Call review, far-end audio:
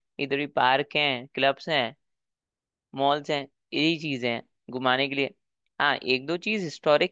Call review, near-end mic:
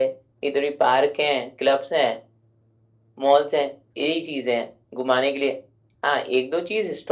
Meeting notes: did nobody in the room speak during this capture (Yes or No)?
Yes